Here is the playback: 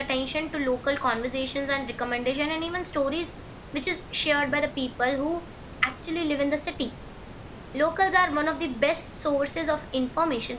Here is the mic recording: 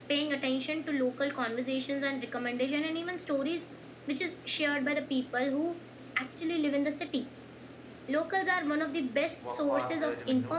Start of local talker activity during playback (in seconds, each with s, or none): 9.4 s